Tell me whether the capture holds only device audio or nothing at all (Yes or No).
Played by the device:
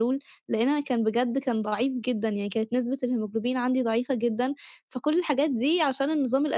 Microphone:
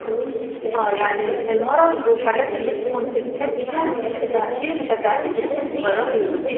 No